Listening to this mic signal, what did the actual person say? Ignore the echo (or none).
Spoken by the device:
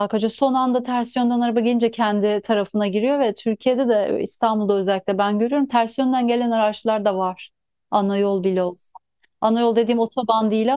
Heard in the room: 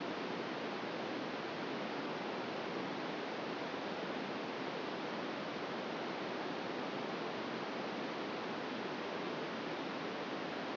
none